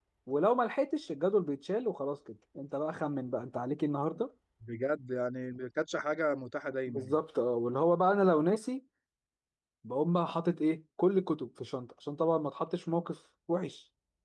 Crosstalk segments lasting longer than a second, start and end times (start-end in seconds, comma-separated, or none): none